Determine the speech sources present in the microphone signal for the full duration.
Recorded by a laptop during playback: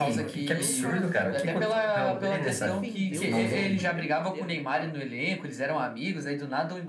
both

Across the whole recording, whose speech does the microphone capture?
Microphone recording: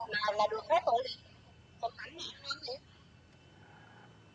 echo only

